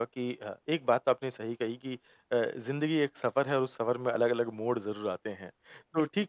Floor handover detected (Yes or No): No